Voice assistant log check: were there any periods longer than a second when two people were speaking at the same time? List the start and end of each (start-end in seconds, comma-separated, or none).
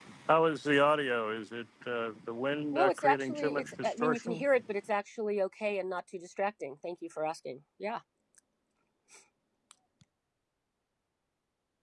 2.7-4.4